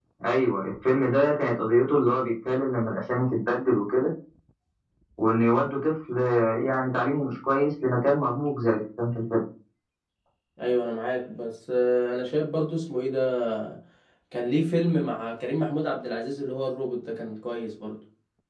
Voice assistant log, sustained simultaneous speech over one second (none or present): none